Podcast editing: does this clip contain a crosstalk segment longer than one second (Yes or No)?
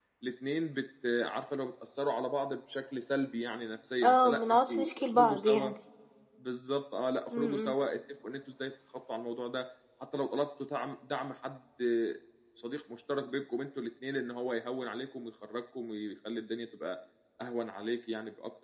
Yes